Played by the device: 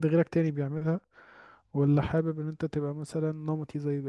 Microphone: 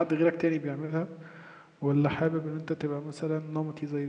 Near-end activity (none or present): none